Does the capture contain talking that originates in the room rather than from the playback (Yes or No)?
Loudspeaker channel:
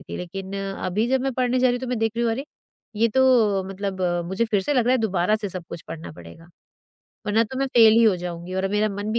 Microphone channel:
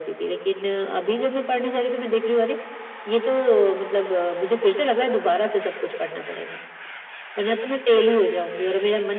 No